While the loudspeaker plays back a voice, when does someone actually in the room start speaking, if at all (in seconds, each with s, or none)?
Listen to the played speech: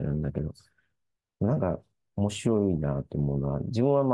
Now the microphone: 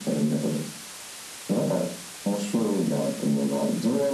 none